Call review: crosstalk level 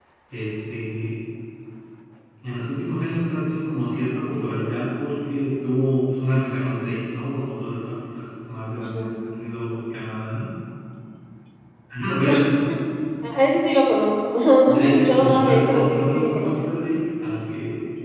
present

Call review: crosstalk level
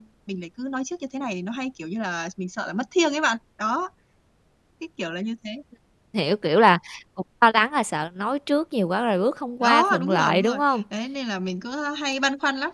present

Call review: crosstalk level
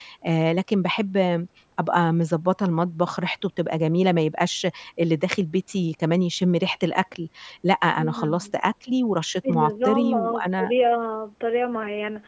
present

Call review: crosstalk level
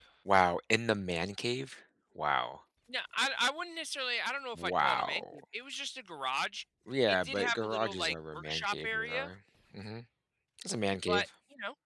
present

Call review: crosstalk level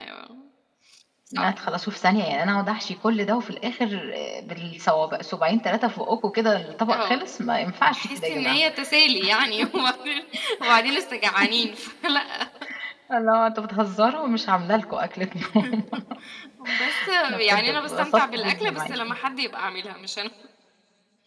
present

